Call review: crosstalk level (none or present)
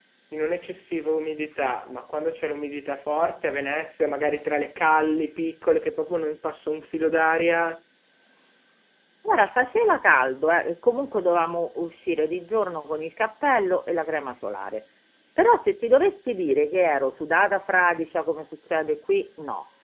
none